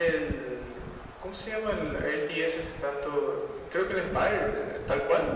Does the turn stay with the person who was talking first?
No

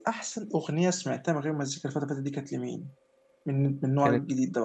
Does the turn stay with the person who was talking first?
No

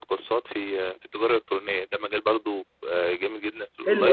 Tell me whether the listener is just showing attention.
No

